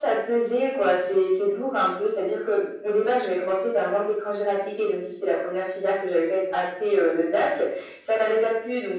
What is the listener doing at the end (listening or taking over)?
listening